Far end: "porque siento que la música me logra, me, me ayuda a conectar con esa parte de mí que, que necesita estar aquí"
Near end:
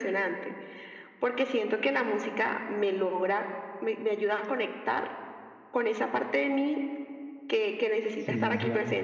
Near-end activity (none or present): present